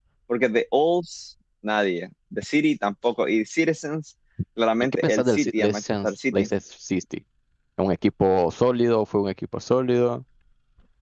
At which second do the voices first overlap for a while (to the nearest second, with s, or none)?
5 s